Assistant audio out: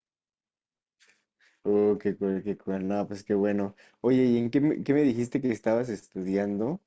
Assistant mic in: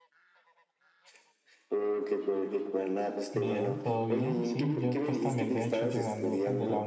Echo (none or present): present